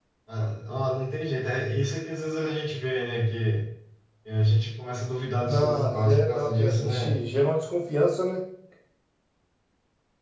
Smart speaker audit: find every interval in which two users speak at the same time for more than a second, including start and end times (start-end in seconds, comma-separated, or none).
5.4-7.2